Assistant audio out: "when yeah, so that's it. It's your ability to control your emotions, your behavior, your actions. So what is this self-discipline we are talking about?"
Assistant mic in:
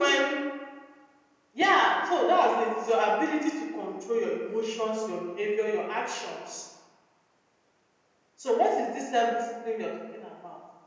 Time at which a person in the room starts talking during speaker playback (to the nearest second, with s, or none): none